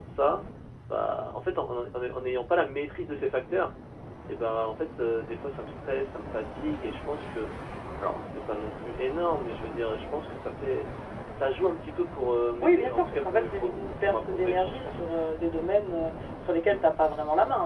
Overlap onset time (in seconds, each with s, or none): 12.6 s